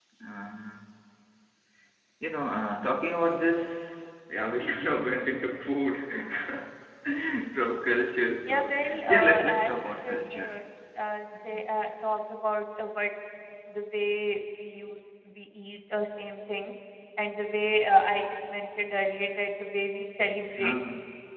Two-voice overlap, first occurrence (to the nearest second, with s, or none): 8 s